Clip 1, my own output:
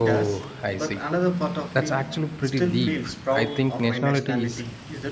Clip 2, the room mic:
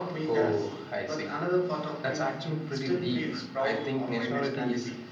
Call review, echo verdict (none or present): present